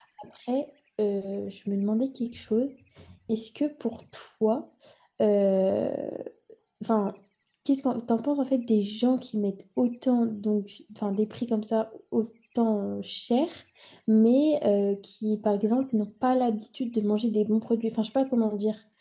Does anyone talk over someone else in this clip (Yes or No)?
No